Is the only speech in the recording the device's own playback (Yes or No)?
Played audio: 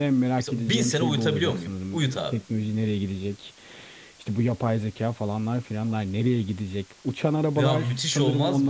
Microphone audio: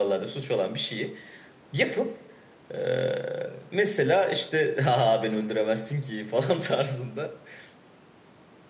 No